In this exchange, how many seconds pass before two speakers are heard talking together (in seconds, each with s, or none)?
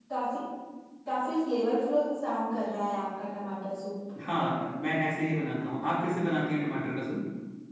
none